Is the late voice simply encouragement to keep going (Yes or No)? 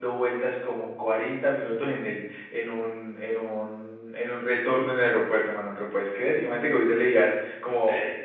Yes